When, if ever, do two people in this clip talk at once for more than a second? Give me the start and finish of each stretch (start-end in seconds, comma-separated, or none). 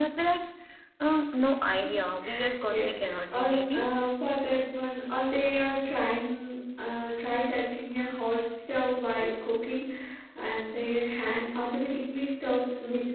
2.7-4.0